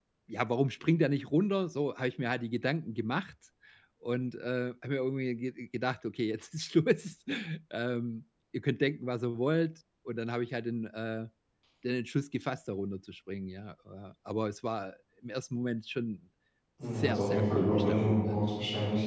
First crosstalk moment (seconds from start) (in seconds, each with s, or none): 17.0 s